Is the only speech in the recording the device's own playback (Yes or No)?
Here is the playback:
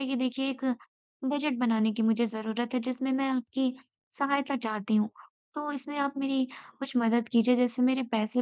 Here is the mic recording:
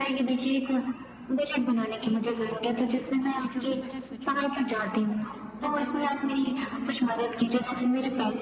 No